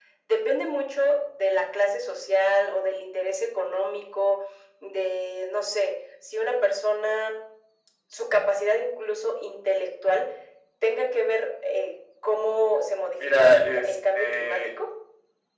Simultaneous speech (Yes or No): Yes